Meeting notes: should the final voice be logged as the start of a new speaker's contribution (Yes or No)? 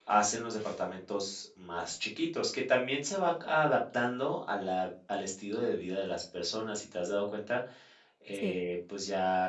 No